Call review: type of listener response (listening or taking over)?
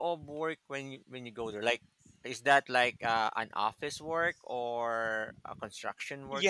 taking over